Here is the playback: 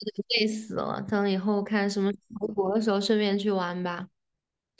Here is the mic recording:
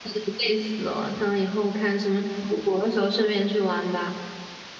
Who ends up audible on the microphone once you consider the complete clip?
echo only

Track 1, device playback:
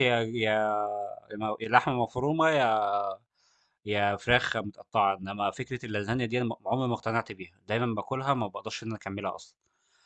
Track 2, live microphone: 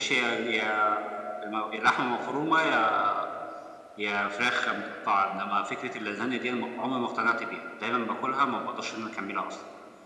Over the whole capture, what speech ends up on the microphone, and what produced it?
echo only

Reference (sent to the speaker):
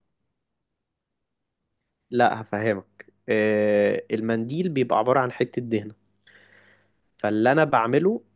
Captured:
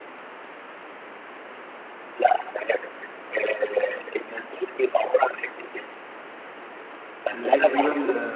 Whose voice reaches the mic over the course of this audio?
both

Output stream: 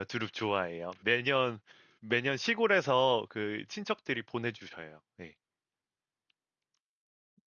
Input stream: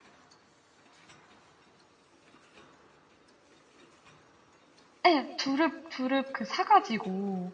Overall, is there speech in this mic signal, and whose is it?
user only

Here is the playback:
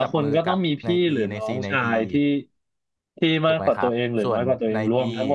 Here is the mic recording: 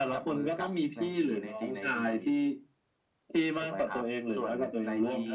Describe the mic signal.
echo only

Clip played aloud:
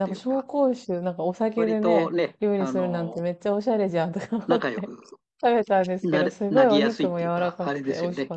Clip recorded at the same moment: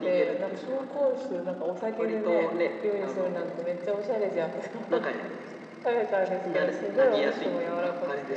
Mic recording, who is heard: echo only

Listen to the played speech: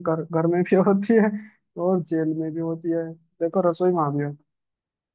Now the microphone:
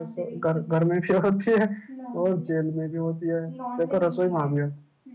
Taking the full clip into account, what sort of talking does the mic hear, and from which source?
both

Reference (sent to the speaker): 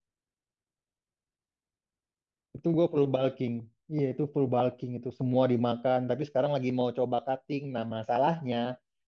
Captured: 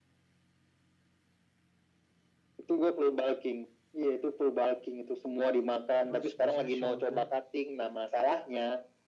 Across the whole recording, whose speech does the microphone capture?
both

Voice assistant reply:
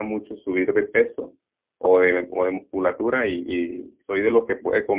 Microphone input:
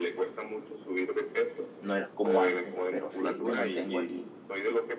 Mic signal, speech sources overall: both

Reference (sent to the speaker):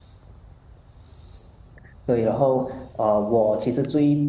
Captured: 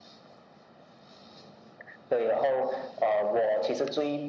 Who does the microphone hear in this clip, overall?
echo only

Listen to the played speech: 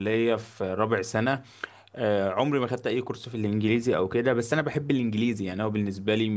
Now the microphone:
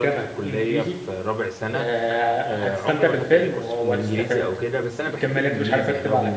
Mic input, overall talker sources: both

